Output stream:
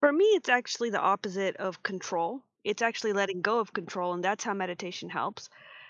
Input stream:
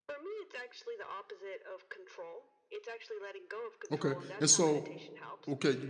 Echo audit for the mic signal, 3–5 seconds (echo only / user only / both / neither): both